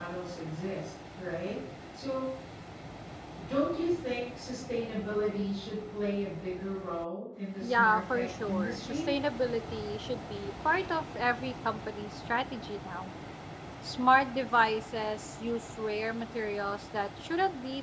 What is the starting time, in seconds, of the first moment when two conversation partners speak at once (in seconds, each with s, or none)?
7.6 s